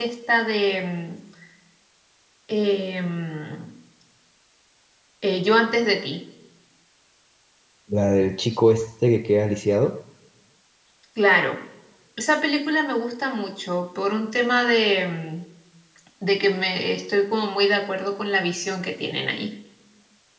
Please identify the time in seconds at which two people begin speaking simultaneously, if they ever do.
none

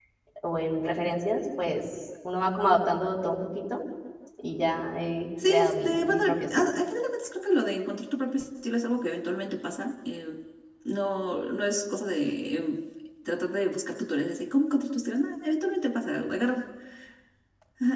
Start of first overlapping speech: 5.4 s

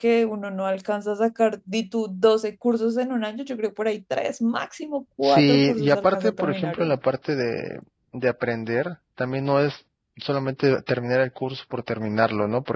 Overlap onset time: 5.2 s

